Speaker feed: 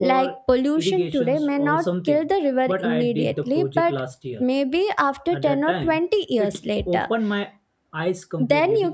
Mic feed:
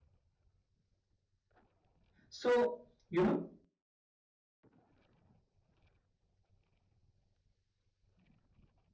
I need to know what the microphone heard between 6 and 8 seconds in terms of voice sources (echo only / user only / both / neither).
neither